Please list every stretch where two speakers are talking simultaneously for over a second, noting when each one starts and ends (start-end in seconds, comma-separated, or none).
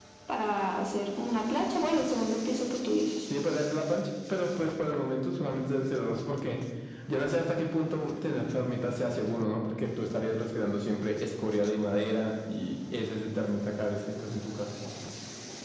none